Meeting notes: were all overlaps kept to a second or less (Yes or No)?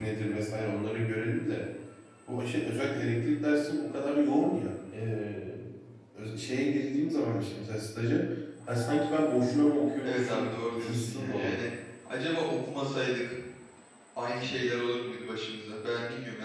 No